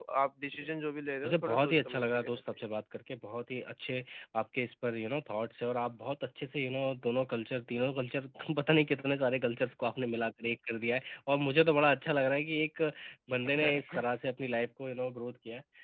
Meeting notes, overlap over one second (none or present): present